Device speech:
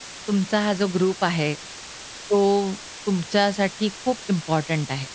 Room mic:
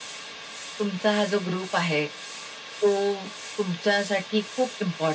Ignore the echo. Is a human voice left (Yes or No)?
No